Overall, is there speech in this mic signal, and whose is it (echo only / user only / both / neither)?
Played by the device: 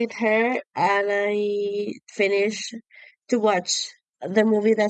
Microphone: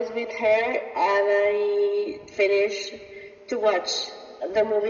echo only